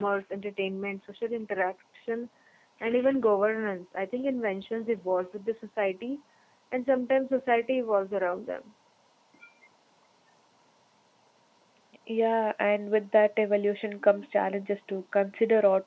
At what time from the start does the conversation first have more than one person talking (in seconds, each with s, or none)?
none